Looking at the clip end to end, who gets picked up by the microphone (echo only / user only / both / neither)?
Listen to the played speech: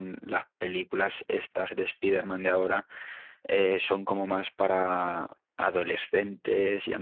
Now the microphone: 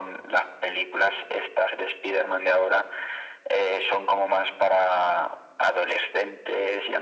echo only